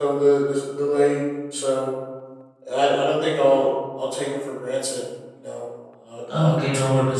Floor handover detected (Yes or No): Yes